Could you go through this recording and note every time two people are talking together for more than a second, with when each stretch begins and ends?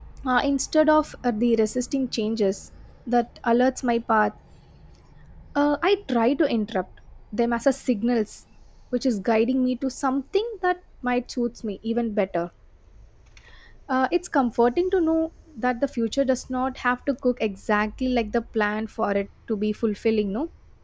none

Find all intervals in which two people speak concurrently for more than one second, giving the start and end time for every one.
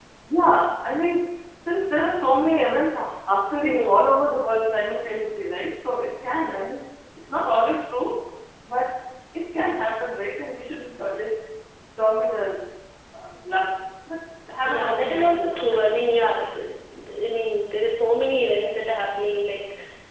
14.7-16.1

